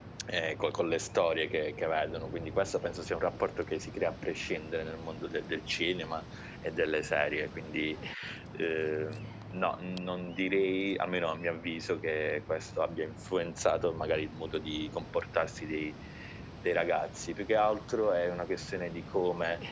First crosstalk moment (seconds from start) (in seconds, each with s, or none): none